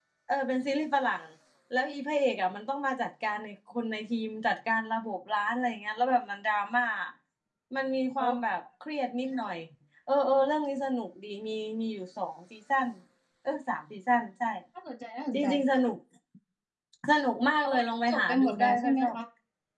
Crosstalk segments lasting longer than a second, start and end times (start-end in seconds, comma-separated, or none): 17.6-19.2